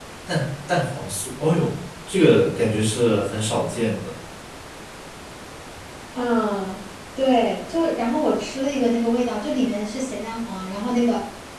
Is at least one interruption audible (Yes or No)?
No